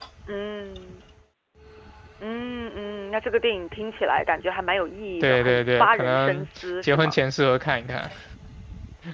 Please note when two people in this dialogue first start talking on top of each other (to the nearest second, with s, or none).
5 s